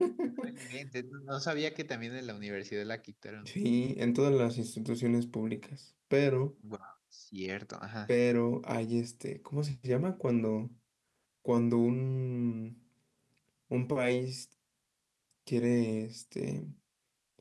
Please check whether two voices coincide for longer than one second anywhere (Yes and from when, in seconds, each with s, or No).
No